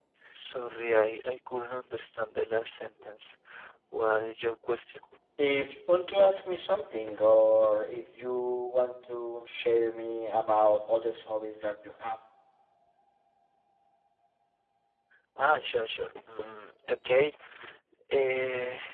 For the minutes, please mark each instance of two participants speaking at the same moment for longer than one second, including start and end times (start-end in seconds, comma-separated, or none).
none